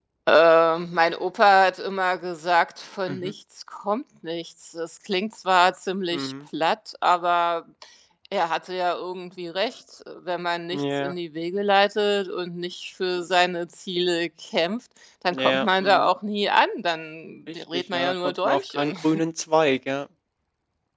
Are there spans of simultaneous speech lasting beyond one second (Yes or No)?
Yes